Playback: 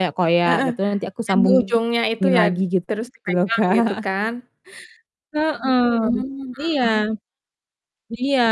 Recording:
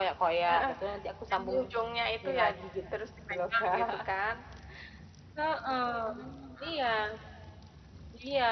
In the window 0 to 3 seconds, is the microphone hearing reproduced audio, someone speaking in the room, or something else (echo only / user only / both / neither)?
echo only